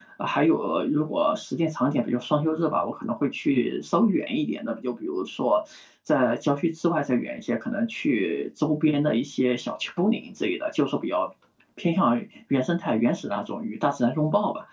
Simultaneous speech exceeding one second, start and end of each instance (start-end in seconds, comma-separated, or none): none